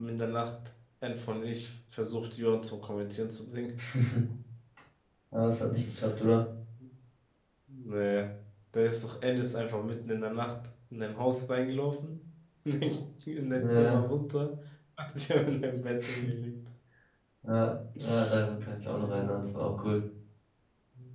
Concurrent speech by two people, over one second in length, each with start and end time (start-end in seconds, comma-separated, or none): none